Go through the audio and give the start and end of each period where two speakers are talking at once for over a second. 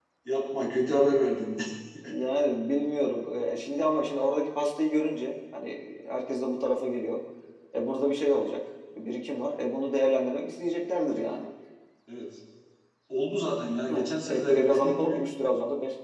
13.9-15.2

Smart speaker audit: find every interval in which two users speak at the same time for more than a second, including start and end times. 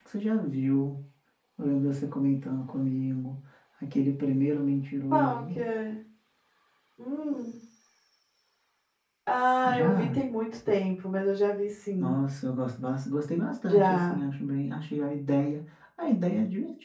none

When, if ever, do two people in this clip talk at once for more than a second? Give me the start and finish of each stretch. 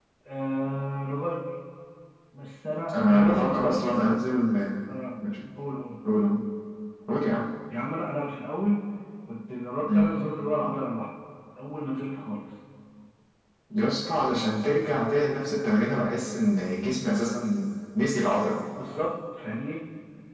2.9-4.2

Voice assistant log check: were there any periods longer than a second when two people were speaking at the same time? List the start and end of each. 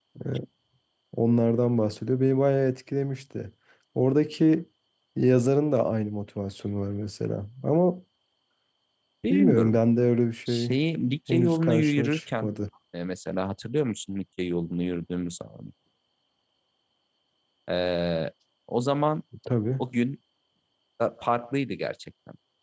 11.3-12.5

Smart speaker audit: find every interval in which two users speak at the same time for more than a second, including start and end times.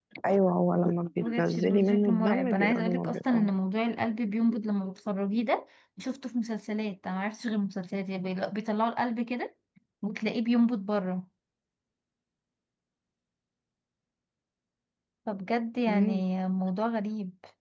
1.2-3.5

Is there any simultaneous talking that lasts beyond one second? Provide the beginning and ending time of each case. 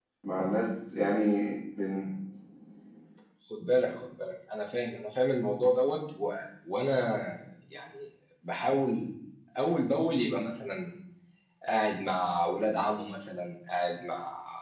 none

